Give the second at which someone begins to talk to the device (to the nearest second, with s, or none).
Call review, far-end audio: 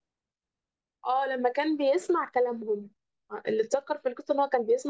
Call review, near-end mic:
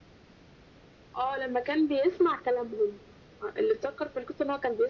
none